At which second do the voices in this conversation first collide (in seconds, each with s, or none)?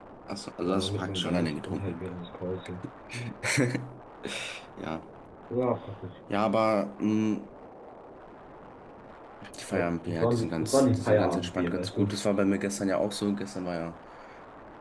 0.6 s